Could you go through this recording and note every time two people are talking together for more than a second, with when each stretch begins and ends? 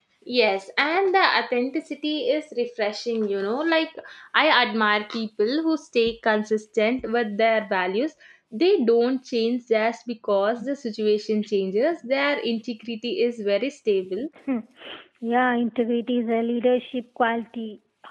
none

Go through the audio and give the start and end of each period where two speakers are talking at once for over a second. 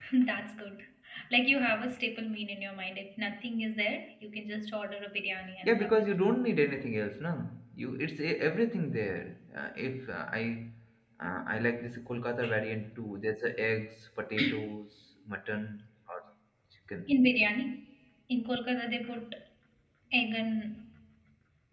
none

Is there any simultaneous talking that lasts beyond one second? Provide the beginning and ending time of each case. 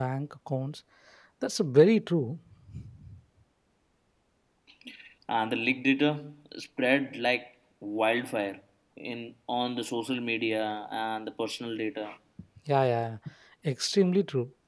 none

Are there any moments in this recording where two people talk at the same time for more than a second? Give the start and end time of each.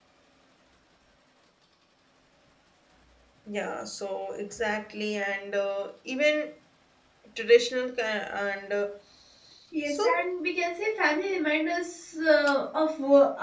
none

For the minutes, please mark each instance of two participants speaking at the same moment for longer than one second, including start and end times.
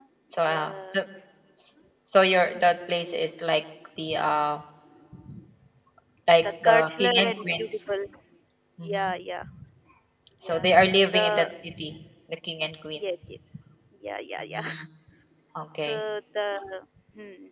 6.4-7.8

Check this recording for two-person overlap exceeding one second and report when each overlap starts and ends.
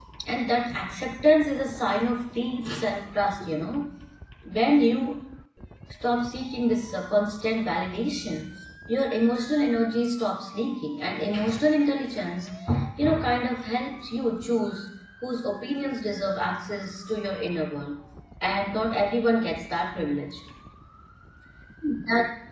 none

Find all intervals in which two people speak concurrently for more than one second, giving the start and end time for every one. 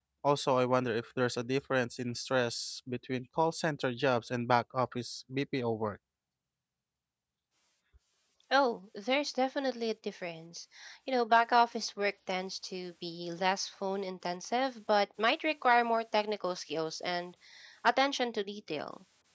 none

